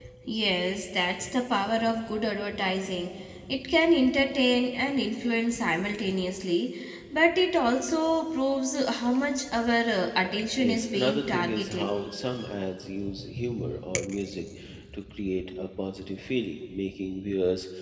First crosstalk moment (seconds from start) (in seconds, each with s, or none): 10.6 s